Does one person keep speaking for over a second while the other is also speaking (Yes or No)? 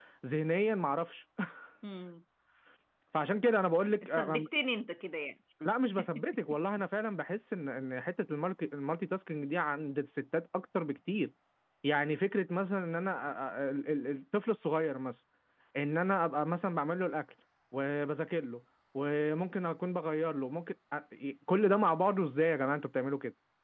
No